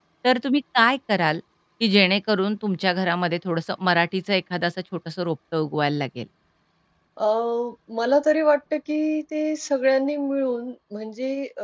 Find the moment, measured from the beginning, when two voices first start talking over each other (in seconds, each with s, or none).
none